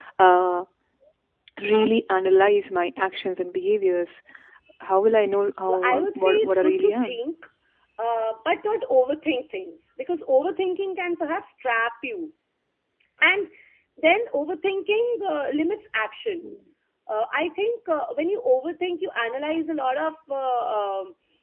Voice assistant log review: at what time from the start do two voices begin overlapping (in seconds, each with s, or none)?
5.6 s